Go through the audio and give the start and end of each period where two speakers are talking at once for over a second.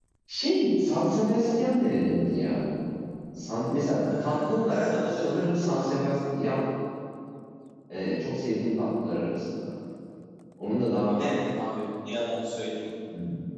4.2-5.5

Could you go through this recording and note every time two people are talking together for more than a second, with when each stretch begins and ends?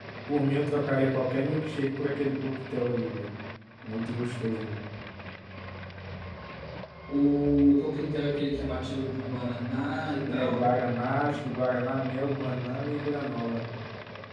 none

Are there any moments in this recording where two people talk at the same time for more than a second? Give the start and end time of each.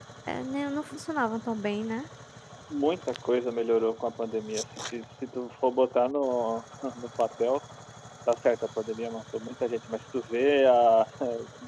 none

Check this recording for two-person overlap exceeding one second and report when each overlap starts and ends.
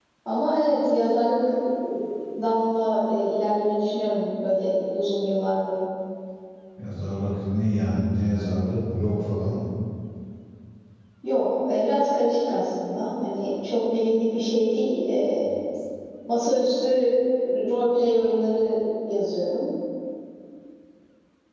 none

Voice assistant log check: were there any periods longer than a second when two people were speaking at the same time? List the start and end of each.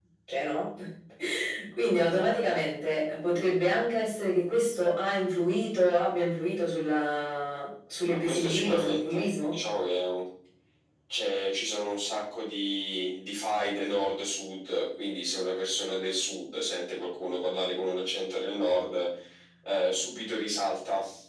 8.2-9.6

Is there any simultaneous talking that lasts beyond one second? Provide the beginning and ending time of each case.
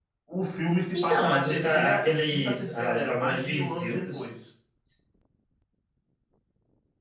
0.9-4.0

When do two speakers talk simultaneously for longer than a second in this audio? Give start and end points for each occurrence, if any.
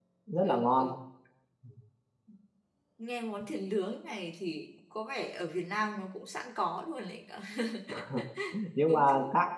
none

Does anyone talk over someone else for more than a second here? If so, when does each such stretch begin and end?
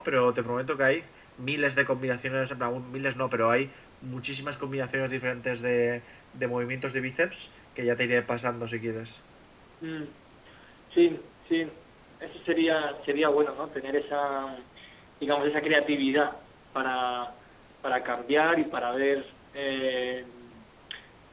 none

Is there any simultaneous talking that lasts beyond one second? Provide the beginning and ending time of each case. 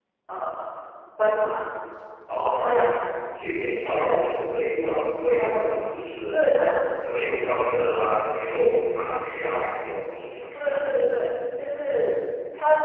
none

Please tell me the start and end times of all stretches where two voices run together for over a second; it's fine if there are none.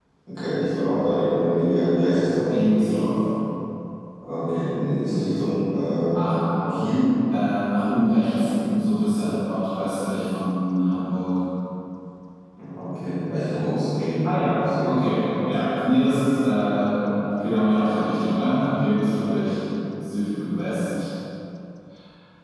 none

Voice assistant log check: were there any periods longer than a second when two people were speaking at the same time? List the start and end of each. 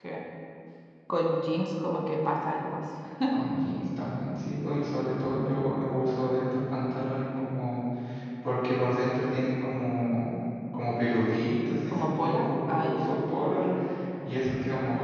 11.9-13.1

